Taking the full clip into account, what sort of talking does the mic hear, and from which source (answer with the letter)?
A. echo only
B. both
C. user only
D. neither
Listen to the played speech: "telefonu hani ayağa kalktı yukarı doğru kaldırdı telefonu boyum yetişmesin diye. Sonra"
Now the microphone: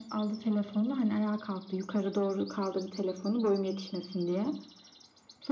A